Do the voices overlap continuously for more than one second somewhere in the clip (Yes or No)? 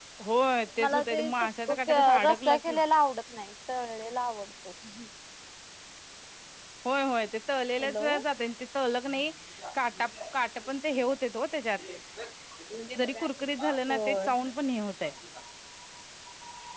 Yes